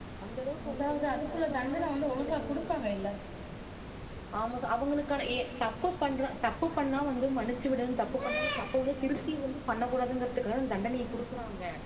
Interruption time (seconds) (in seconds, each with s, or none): 0.7 s